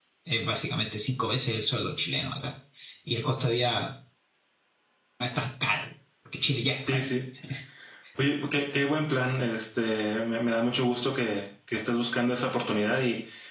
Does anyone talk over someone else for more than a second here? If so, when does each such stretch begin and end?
none

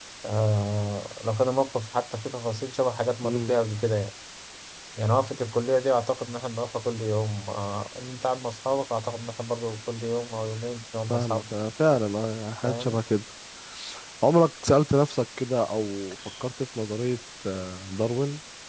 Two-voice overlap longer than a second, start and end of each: none

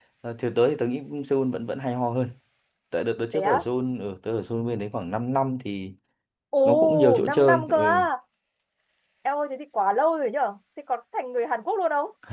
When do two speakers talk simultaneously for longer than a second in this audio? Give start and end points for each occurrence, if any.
6.7-8.0

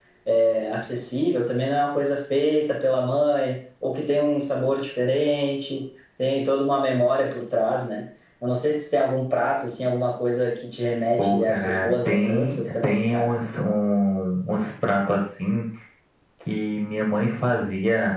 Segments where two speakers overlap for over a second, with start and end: 11.2-13.3

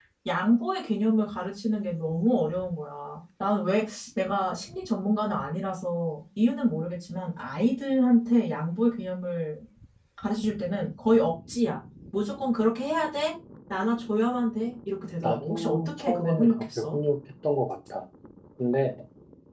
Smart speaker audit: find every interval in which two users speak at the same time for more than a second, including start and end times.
15.2-16.9

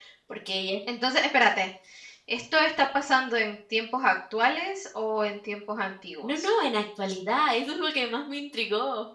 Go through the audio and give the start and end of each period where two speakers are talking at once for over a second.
none

